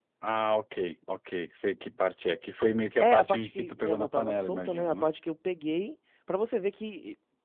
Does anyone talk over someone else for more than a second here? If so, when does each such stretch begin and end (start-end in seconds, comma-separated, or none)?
3.0-5.1